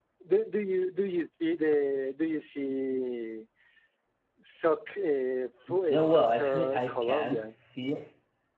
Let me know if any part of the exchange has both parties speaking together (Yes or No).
Yes